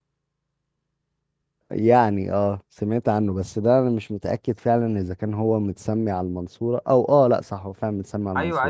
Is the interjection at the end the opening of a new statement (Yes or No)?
Yes